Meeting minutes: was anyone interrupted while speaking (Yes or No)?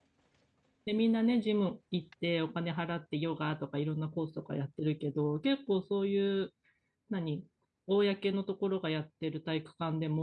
No